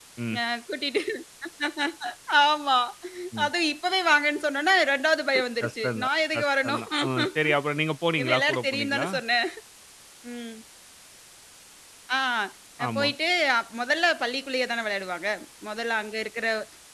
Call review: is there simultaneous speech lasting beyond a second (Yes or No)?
Yes